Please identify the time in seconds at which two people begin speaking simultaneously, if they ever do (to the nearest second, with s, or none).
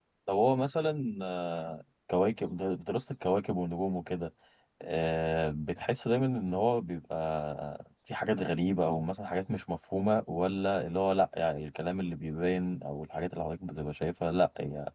none